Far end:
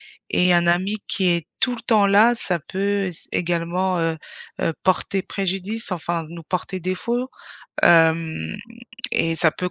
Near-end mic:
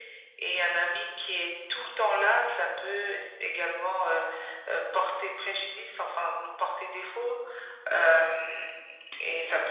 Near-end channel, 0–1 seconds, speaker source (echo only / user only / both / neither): echo only